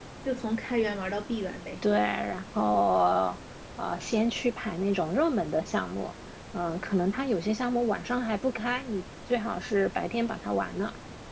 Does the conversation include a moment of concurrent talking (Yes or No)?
No